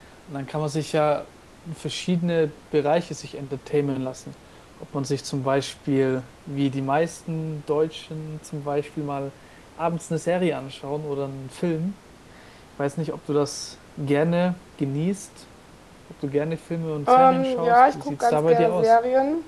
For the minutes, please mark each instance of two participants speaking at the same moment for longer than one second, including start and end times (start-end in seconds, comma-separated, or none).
17.1-18.9